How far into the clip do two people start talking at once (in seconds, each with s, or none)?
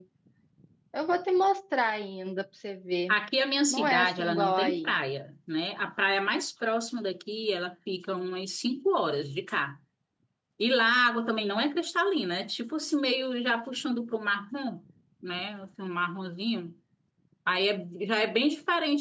3.7 s